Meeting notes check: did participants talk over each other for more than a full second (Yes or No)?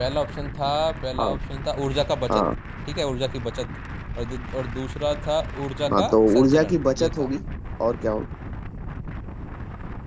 Yes